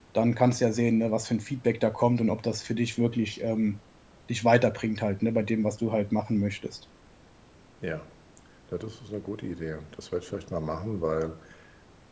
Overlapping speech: No

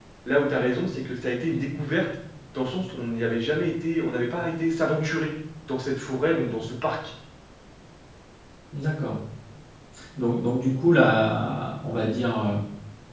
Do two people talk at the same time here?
No

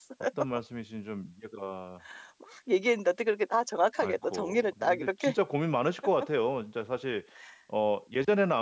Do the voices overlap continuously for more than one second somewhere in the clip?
Yes, from 4.0 s

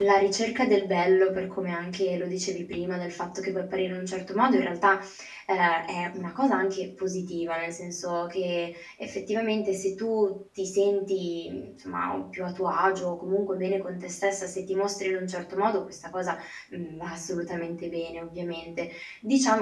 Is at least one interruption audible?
No

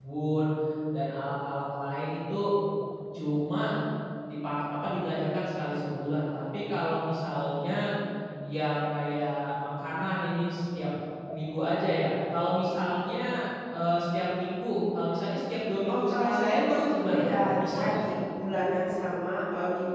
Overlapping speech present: Yes, from 15.9 s

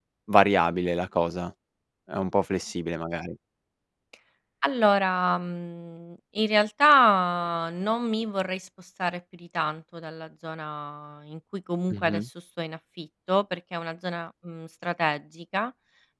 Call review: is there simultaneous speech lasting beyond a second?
No

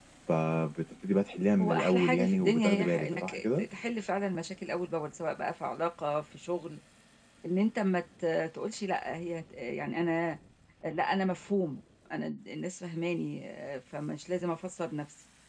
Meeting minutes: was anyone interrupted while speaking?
Yes, from 1.6 s

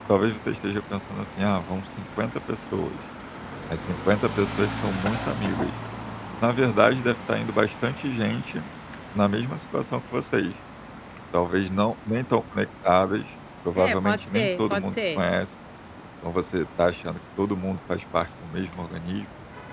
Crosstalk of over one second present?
Yes, from 13.8 s

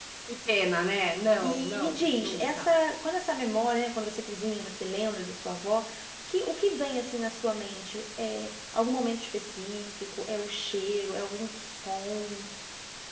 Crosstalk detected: Yes, from 1.4 s

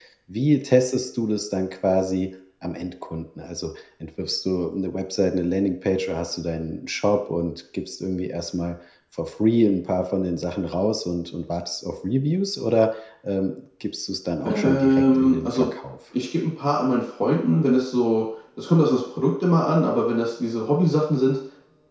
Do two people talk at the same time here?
Yes, from 14.4 s

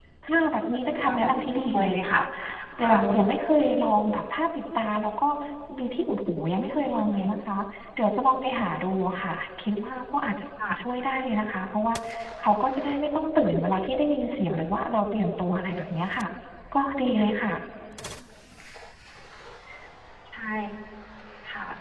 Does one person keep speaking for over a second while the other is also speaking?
Yes, from 0.9 s

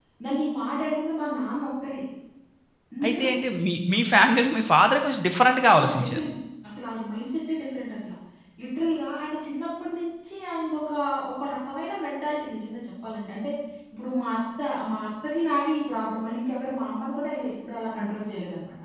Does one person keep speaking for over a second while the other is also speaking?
No

